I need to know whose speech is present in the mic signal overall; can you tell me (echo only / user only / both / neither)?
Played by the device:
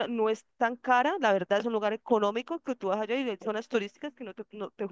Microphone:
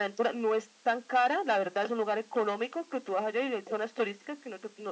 echo only